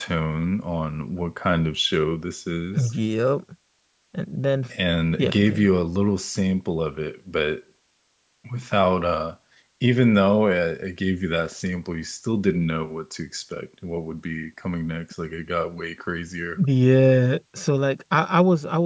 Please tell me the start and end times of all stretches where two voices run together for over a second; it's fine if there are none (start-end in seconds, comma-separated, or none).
none